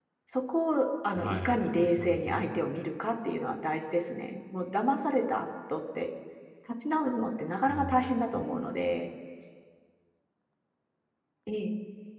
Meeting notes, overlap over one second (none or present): present